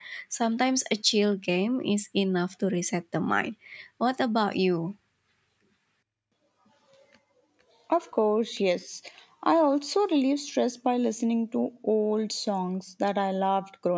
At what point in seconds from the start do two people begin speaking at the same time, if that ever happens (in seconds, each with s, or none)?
none